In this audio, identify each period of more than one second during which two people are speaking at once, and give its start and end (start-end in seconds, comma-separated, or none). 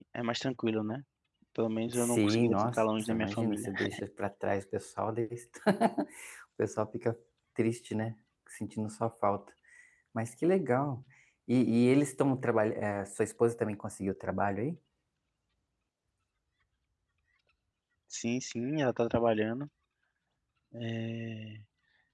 1.9-3.7